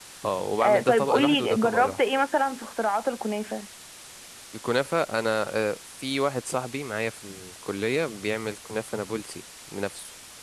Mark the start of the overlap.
0.6 s

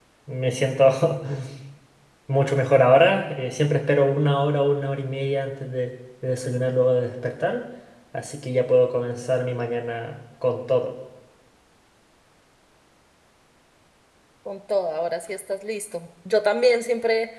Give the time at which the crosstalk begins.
none

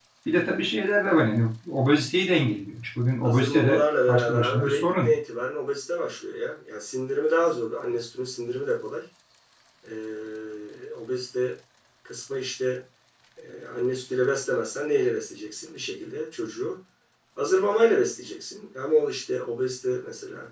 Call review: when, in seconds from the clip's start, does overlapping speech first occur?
3.2 s

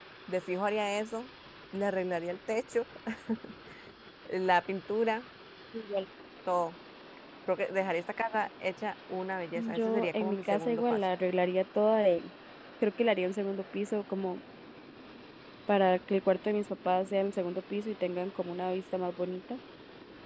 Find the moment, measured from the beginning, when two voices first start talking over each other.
9.6 s

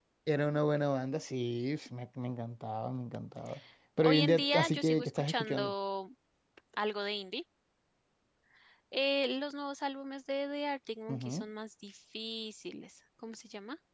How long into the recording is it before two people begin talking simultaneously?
4.0 s

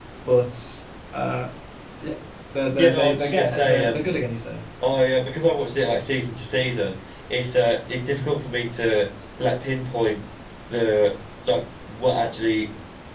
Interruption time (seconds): 2.8 s

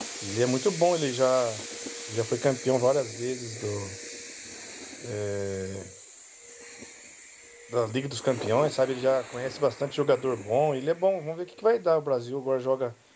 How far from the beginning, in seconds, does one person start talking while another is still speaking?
none

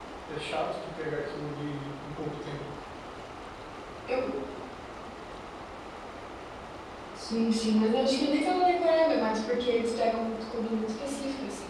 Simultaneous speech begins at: none

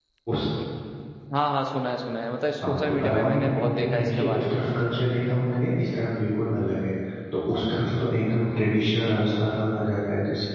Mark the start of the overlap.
2.6 s

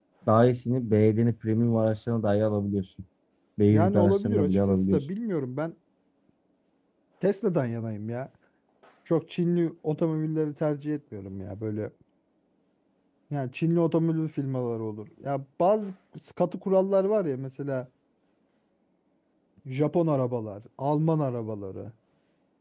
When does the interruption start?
3.7 s

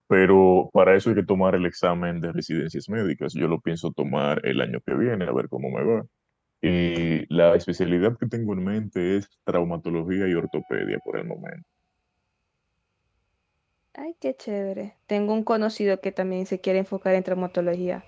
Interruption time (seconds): none

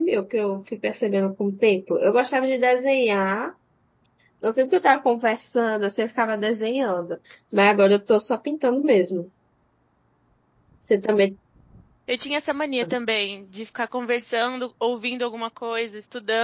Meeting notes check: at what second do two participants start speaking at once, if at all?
none

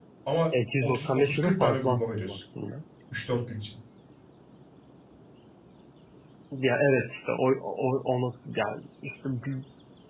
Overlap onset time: 0.8 s

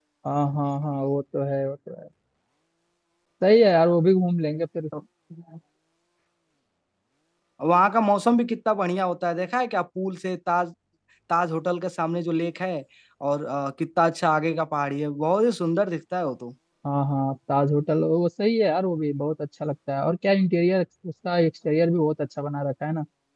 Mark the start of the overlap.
none

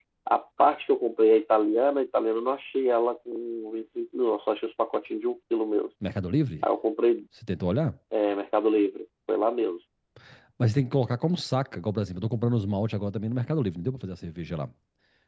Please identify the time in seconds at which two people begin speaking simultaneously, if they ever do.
none

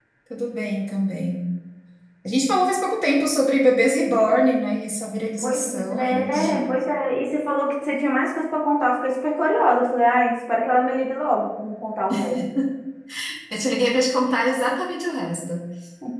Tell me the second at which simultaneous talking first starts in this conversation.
5.4 s

